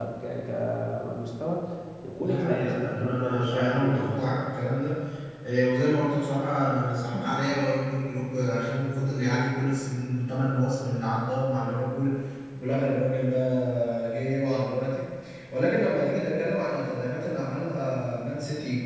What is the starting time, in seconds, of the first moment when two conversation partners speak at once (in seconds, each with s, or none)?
2.2 s